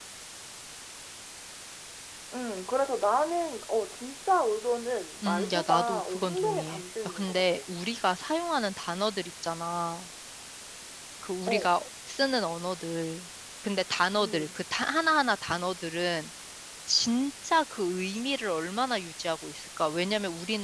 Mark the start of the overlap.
5.2 s

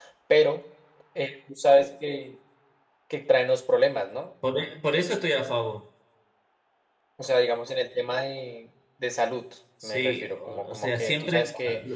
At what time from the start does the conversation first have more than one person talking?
9.8 s

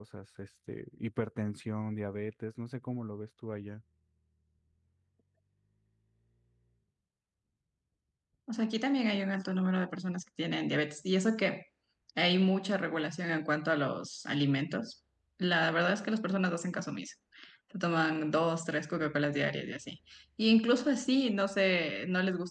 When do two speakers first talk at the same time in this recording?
none

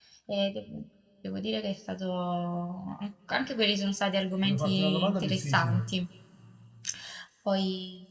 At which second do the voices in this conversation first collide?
4.4 s

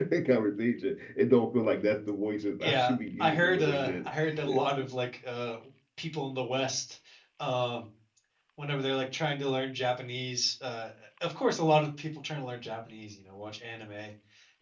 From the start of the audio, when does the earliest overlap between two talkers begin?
2.6 s

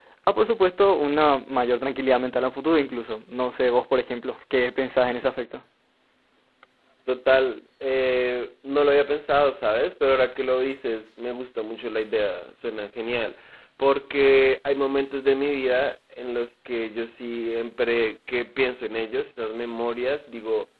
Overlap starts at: none

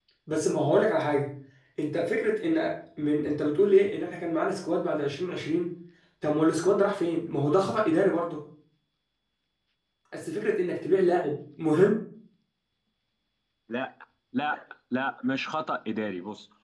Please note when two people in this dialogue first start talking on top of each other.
none

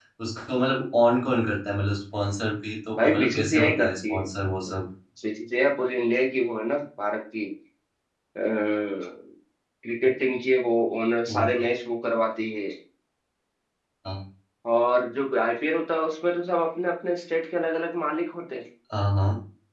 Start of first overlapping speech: 3.0 s

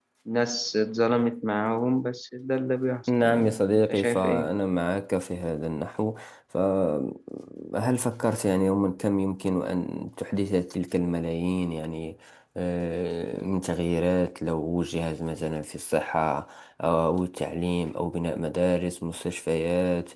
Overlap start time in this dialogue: 3.1 s

